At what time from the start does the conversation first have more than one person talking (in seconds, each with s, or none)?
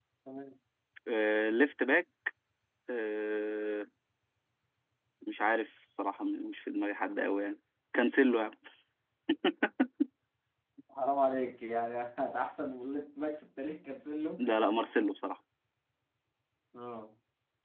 none